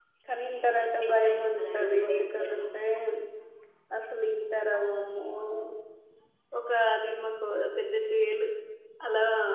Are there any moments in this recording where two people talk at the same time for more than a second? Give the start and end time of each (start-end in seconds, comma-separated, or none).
1.0-2.6